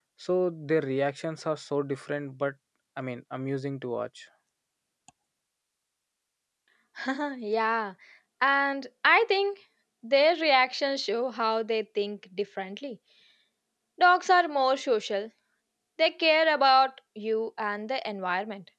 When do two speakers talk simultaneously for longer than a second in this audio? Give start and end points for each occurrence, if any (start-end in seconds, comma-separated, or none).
none